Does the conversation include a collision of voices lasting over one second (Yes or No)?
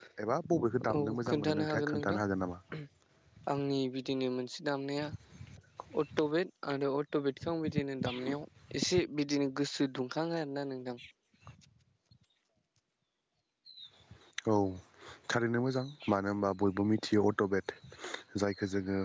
Yes